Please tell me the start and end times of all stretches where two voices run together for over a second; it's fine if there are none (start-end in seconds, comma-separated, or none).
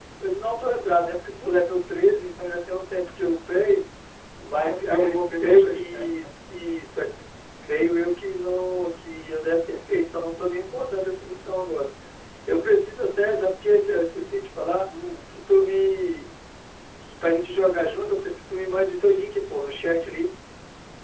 4.5-6.2